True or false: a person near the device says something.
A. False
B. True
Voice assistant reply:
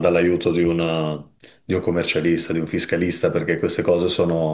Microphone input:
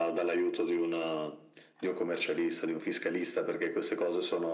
A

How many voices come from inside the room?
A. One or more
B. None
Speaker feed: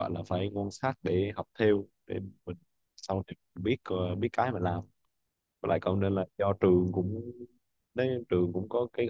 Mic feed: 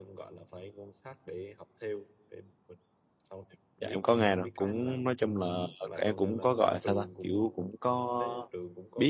A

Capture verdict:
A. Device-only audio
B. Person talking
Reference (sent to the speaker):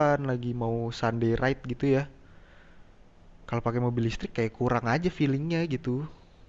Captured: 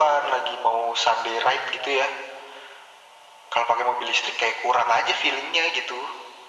A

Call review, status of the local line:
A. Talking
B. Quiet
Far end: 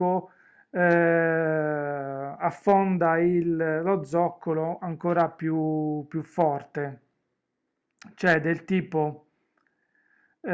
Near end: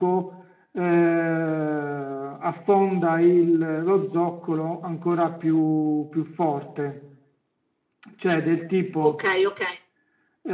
A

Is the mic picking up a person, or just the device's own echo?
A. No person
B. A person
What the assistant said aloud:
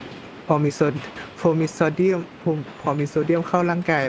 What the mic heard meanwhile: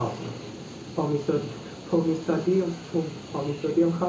A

